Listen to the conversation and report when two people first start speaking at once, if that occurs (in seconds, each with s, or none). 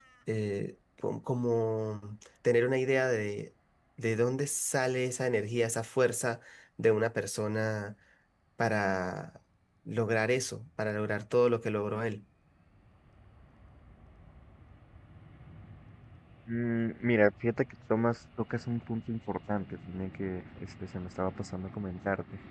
none